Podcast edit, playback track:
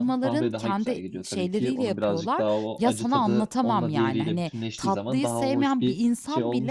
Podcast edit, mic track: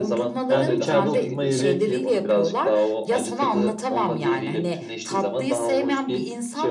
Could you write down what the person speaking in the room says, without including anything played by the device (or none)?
Yani içeride oturma yeri